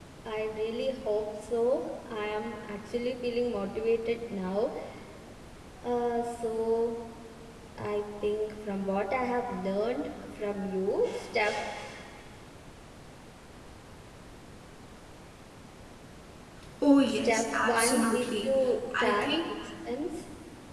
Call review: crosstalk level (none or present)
present